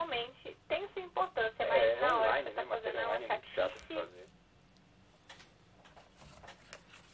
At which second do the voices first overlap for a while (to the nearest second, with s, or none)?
2 s